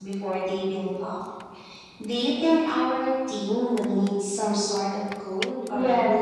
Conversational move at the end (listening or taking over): taking over